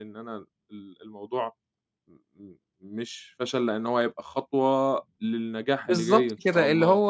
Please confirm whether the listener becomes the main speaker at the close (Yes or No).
Yes